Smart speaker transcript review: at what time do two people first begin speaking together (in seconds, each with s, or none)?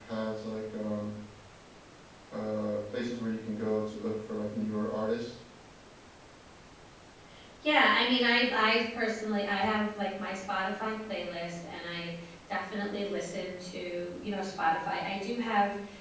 none